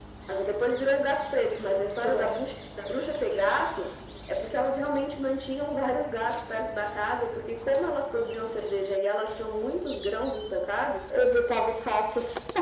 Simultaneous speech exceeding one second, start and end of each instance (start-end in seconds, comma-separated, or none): none